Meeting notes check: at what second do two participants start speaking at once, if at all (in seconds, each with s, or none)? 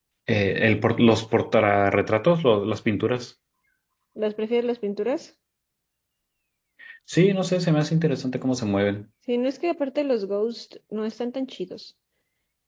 none